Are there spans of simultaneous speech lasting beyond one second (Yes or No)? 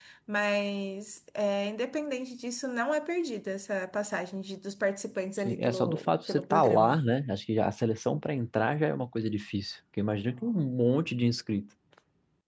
Yes